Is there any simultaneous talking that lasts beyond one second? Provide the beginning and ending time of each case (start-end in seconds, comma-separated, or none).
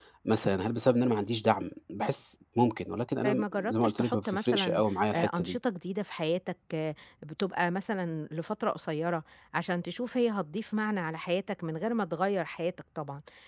3.2-5.6